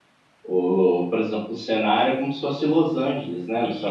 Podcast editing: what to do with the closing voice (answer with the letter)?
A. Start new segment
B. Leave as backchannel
A